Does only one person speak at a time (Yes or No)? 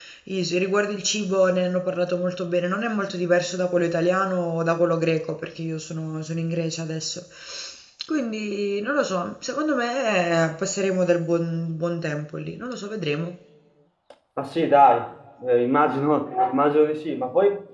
Yes